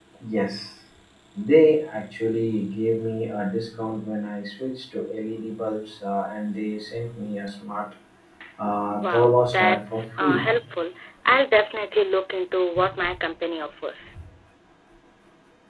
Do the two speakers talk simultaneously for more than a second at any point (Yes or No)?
Yes